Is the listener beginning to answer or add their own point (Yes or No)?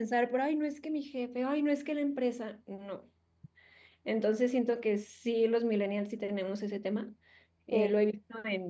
No